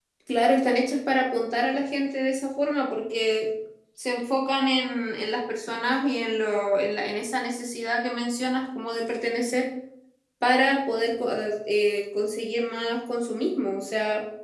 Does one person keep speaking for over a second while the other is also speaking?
No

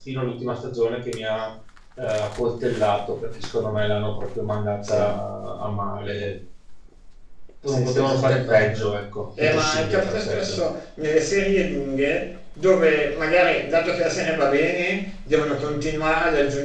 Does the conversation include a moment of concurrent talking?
Yes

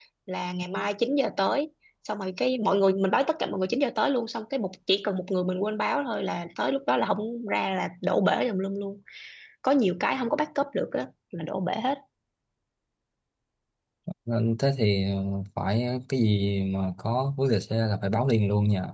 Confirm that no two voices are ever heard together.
Yes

